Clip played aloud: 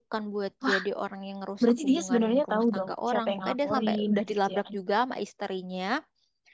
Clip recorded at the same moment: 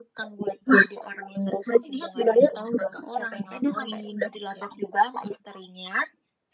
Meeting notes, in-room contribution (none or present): none